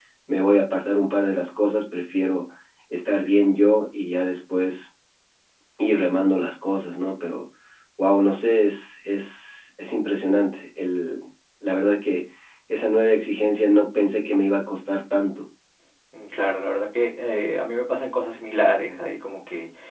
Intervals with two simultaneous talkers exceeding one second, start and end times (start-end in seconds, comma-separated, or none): none